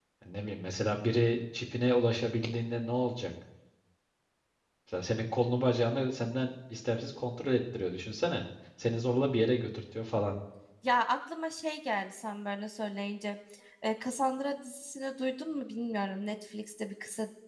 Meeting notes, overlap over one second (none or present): none